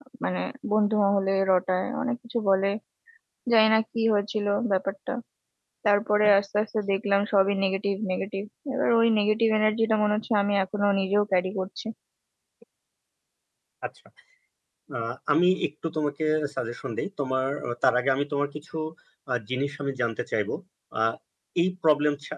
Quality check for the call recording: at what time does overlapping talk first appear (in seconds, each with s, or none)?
none